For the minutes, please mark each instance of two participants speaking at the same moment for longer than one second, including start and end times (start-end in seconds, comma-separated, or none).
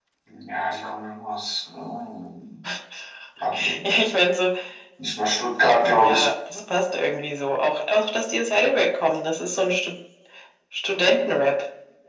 none